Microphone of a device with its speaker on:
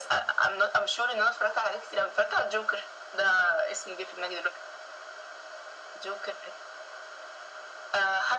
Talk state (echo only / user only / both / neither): echo only